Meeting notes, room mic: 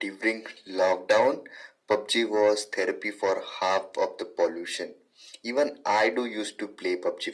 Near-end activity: none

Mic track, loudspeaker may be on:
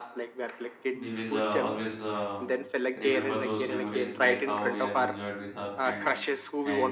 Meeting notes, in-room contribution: present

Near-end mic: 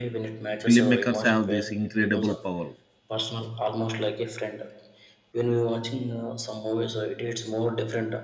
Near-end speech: present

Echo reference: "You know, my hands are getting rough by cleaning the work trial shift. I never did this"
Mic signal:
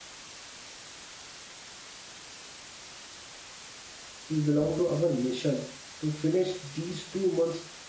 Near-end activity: present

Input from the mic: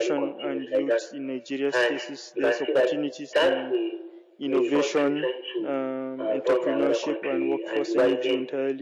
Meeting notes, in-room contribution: present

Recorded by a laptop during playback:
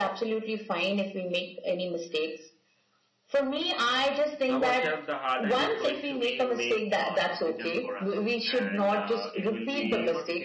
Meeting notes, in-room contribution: present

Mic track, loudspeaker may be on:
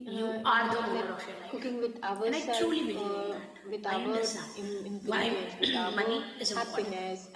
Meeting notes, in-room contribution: present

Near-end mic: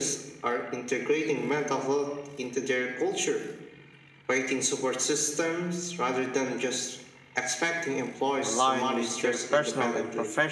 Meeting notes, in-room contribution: present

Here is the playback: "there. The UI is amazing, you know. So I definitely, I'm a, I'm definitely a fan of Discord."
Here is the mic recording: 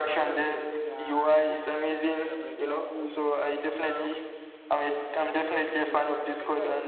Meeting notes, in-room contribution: present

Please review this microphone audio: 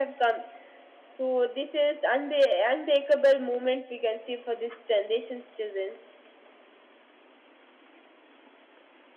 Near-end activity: none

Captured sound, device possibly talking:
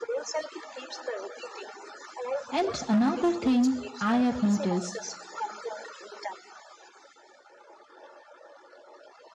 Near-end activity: present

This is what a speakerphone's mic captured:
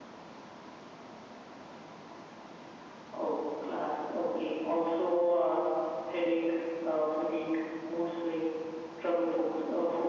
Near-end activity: none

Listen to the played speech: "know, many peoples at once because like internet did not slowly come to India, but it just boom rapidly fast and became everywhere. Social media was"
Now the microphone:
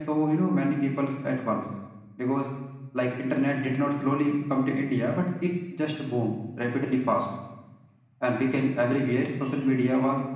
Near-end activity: none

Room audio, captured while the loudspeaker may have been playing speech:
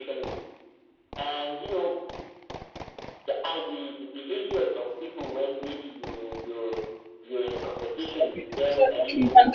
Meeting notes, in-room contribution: present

